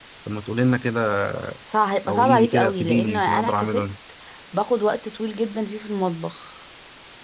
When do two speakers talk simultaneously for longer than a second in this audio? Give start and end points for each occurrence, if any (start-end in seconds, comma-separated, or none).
2.1-3.8